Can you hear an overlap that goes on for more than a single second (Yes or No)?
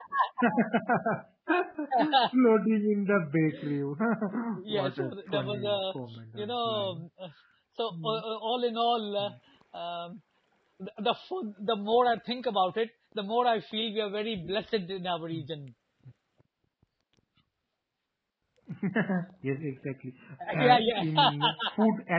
Yes